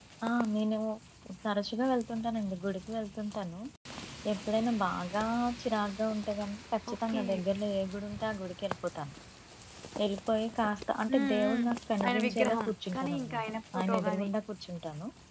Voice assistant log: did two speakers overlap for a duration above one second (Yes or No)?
Yes